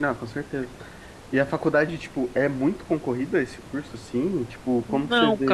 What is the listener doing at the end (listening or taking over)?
taking over